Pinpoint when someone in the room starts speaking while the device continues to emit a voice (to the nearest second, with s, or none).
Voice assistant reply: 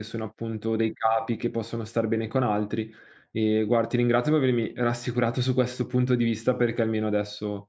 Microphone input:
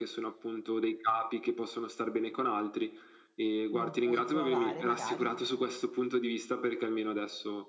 4 s